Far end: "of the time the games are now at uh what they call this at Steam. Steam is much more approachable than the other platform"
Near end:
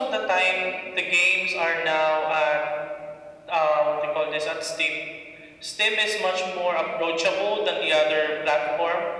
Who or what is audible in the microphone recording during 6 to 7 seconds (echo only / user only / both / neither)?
echo only